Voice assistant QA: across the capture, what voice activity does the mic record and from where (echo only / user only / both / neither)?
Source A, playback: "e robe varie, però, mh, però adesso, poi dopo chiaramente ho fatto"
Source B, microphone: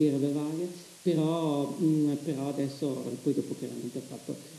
echo only